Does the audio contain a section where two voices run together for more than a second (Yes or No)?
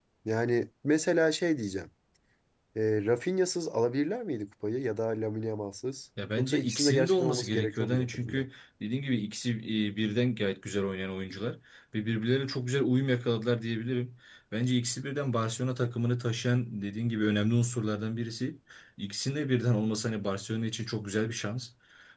Yes